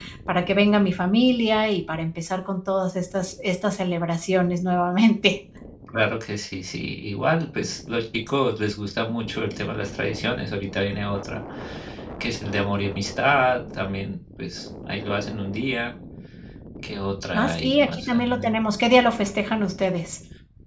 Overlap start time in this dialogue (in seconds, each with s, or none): 17.3 s